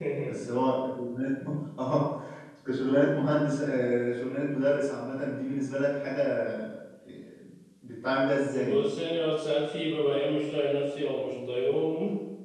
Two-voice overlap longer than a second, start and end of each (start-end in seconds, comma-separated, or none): none